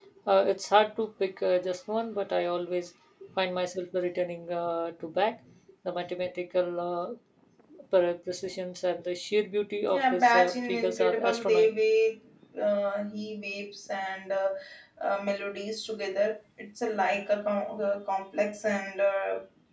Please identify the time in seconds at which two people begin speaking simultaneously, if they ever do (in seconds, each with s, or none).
9.9 s